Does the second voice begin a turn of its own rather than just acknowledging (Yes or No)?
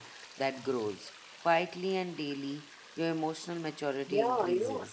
Yes